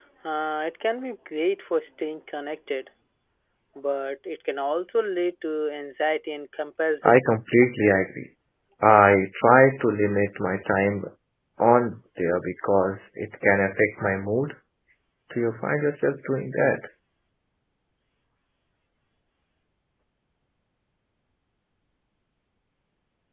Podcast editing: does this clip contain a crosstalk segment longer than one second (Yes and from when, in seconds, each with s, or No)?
No